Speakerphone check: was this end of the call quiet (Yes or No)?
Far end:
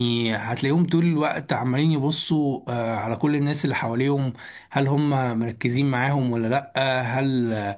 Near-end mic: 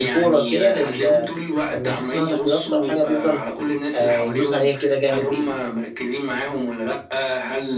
No